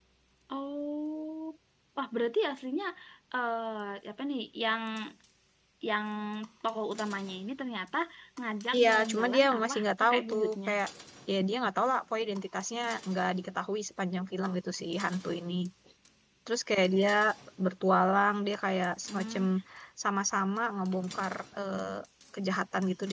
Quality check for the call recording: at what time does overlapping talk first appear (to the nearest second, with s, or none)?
9 s